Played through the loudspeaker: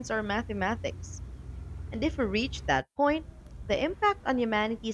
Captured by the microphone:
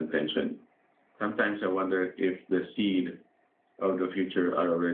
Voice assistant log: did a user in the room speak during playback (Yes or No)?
Yes